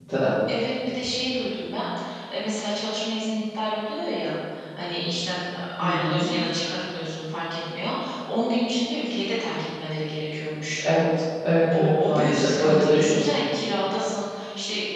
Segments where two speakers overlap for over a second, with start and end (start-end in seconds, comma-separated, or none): 11.7-13.2